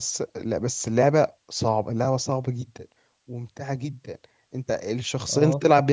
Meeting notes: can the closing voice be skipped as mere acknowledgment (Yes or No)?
Yes